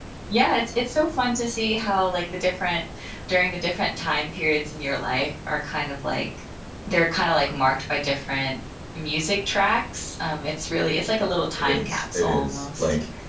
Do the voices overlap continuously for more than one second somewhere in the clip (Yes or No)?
Yes